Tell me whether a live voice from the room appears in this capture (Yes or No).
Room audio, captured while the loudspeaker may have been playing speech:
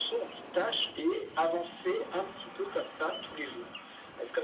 No